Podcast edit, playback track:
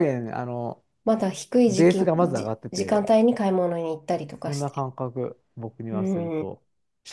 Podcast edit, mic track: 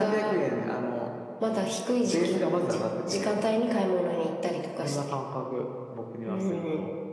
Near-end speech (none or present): none